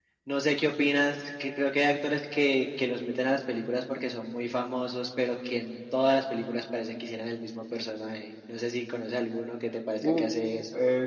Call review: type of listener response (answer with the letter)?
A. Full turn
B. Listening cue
A